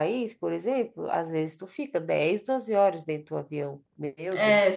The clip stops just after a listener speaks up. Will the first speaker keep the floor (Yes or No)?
No